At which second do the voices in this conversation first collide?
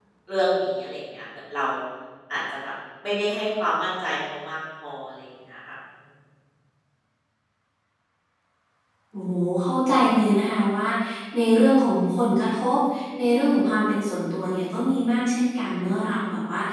none

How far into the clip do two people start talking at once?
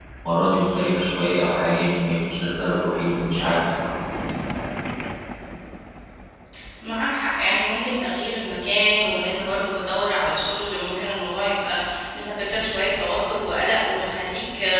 none

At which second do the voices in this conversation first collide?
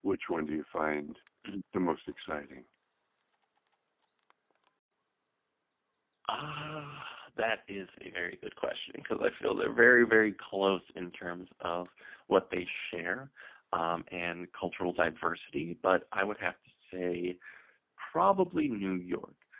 none

